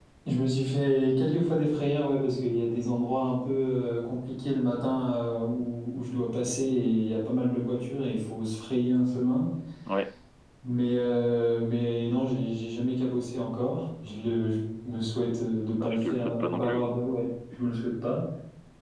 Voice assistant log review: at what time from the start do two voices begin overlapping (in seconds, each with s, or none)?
15.7 s